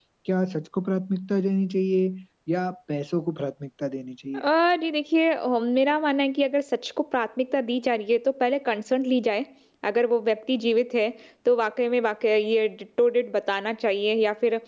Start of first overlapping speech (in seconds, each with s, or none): none